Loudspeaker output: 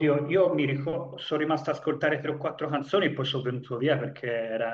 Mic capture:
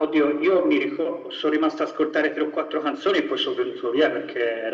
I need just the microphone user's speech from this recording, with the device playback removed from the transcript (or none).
none